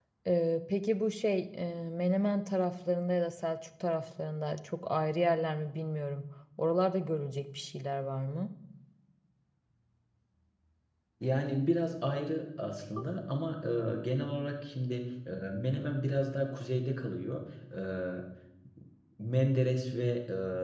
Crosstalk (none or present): none